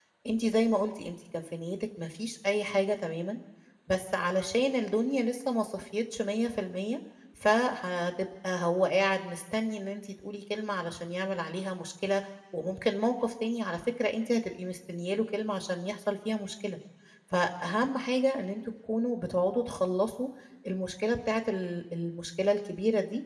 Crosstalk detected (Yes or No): No